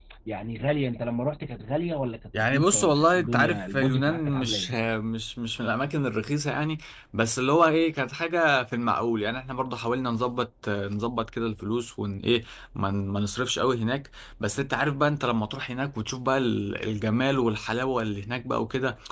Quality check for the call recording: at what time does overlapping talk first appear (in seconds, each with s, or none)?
2.3 s